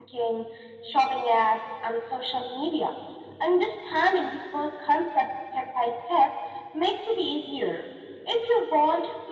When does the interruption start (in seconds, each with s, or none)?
none